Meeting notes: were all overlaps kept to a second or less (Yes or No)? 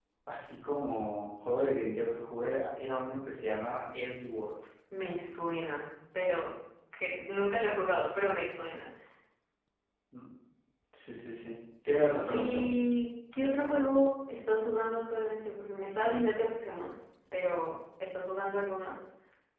Yes